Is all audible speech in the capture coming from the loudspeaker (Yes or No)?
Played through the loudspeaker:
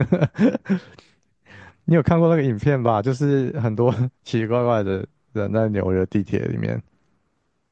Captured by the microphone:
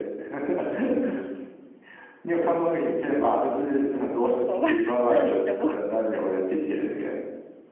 No